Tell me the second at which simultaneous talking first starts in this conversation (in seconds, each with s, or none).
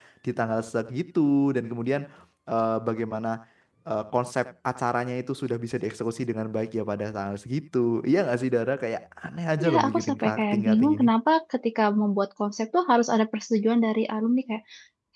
9.6 s